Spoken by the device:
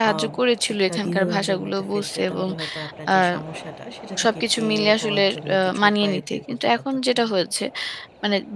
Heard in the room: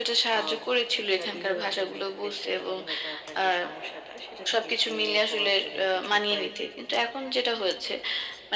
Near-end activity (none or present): none